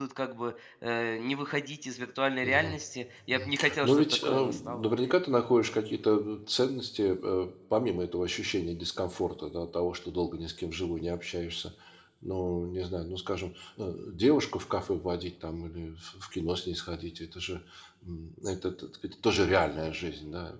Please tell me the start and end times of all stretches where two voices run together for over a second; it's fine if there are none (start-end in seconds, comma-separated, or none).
3.3-4.8